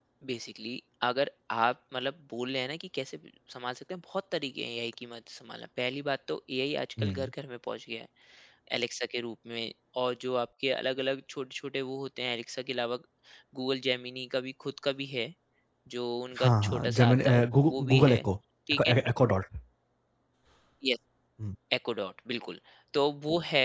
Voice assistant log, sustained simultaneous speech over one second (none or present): present